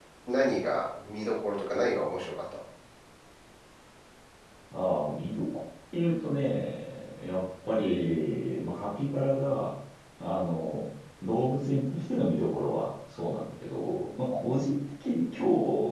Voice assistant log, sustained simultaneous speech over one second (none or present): none